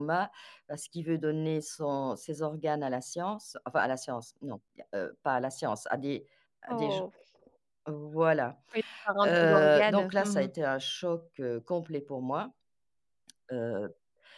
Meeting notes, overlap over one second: present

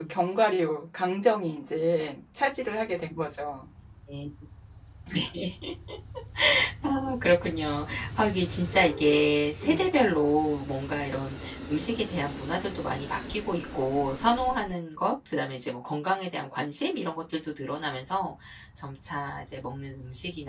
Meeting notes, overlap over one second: none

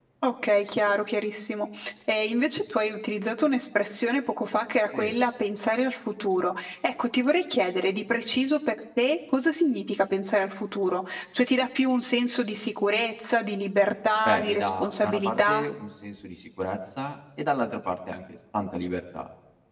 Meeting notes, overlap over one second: present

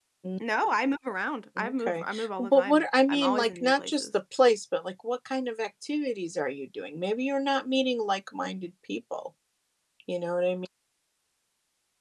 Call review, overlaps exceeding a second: present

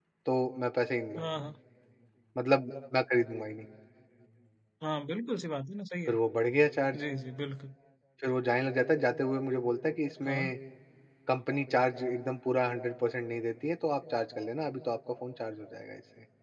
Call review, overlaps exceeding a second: none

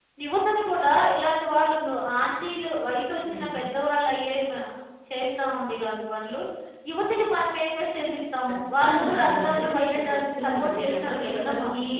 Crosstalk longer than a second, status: present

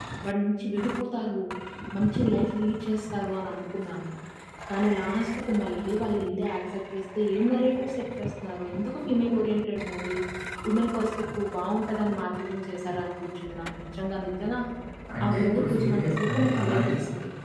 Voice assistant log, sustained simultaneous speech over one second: present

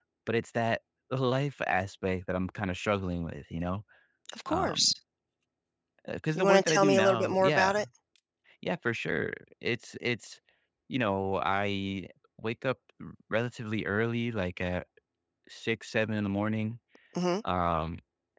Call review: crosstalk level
present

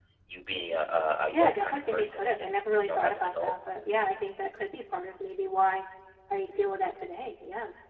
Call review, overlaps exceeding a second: present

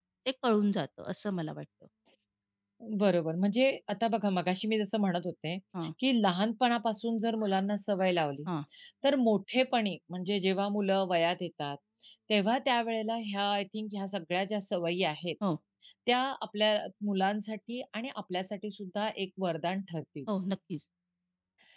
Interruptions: none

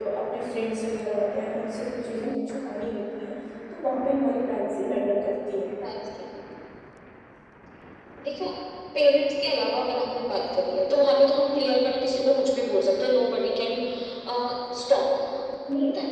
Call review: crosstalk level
none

